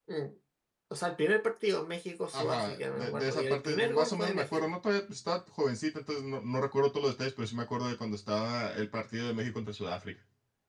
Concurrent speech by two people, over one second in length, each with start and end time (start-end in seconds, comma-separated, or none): 2.3-4.7